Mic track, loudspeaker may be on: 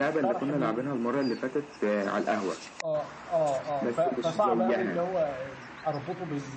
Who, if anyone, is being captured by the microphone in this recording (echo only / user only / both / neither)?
both